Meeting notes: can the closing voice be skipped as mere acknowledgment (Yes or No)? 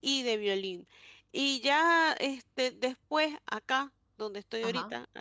Yes